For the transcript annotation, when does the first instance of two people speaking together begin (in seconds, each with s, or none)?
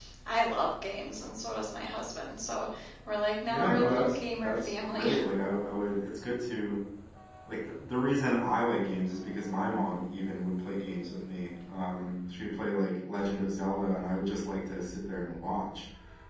3.5 s